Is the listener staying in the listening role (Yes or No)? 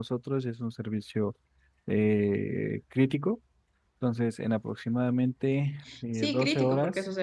No